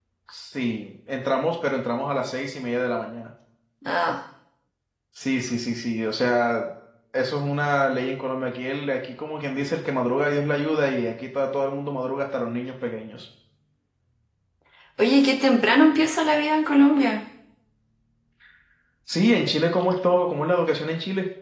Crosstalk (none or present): none